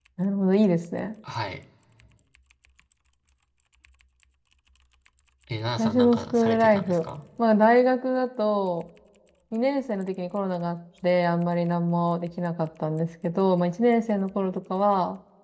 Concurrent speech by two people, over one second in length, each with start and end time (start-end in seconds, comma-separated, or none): 5.8-7.1